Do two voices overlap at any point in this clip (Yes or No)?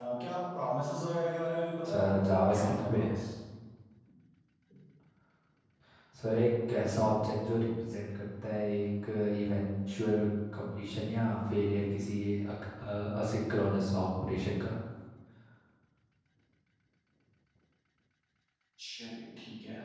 Yes